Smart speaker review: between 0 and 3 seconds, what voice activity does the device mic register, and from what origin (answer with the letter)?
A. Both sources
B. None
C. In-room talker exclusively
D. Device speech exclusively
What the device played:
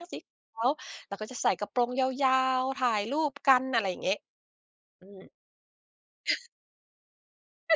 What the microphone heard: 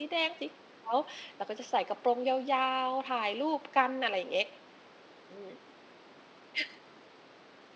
D